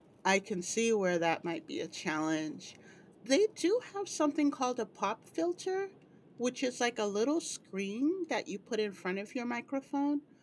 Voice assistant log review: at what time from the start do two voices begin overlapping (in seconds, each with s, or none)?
none